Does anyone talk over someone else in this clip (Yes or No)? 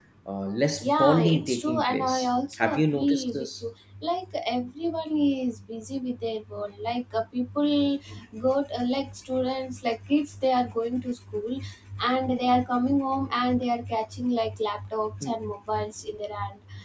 Yes